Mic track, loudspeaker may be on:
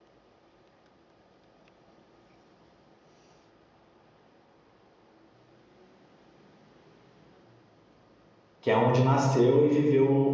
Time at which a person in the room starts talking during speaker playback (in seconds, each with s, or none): 8.6 s